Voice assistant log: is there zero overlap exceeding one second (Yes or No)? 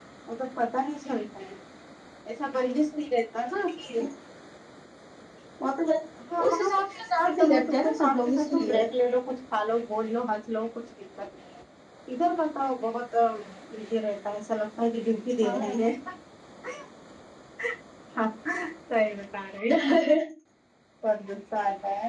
No